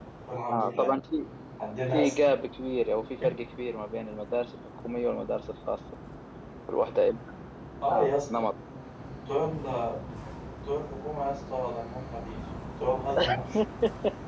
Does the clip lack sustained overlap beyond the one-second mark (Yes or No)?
Yes